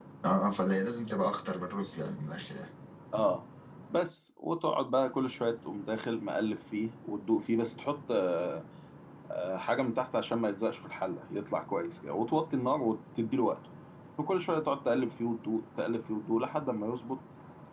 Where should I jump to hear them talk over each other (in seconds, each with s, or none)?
none